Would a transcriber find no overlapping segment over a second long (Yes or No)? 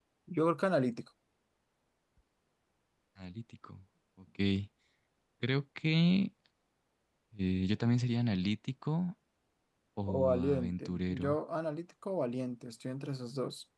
No